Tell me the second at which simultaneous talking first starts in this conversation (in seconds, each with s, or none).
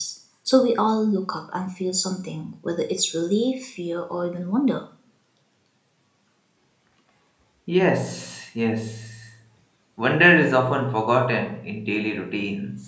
none